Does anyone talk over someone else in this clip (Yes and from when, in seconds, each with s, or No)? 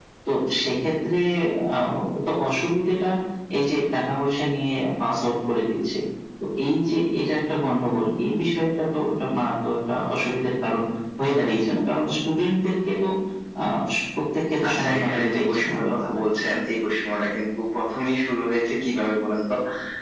Yes, from 14.6 s